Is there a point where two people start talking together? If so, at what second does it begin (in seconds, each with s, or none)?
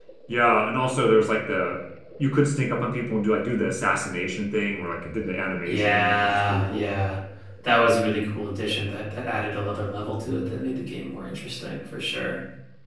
5.7 s